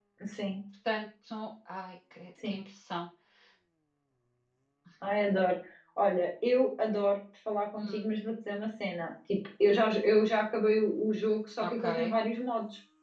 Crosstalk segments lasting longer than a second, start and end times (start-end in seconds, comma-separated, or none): none